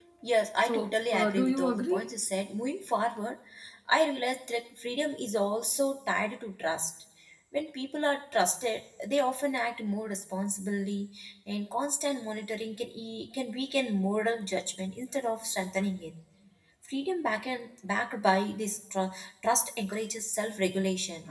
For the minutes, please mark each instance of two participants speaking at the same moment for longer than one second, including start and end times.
0.6-2.1

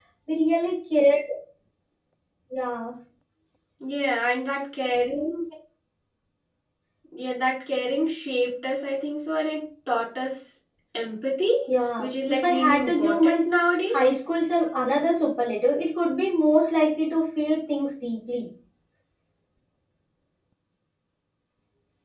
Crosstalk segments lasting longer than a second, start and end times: 12.0-13.4

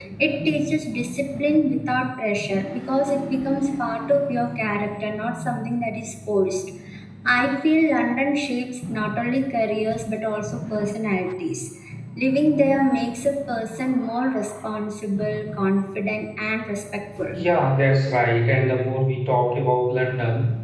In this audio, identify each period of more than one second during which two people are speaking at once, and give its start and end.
none

